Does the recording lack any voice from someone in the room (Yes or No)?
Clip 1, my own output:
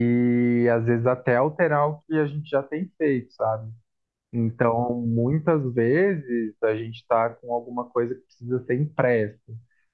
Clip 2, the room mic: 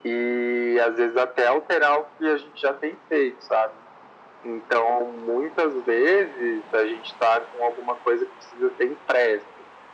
Yes